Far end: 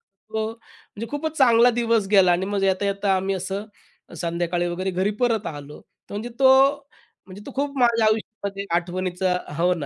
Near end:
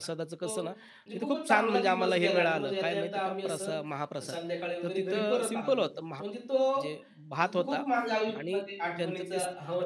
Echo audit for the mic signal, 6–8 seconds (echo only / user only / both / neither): both